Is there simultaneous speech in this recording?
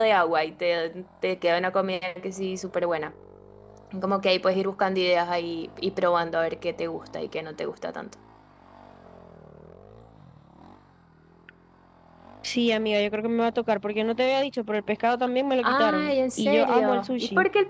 Yes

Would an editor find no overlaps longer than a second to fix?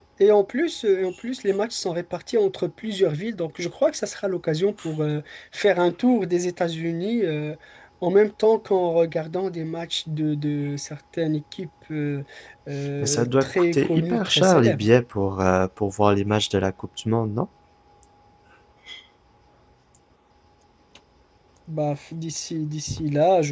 No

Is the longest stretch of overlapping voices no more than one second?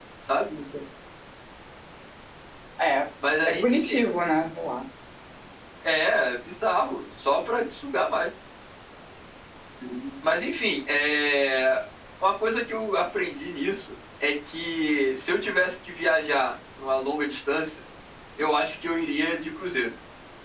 Yes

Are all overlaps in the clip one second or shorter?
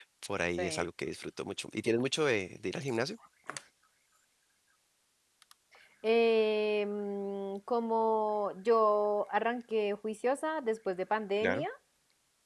Yes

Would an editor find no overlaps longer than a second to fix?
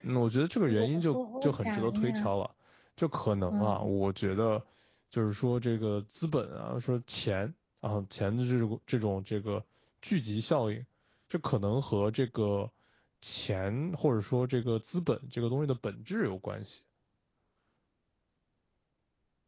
No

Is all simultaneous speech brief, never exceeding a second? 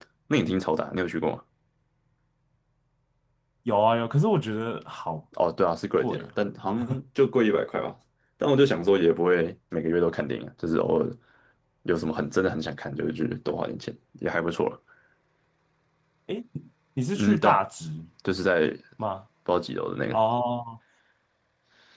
Yes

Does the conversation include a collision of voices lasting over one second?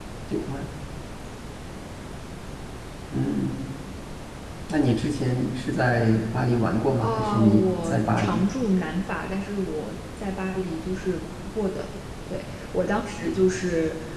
Yes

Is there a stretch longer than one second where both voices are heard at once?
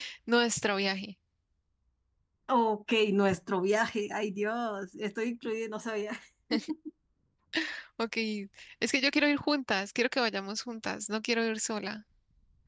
No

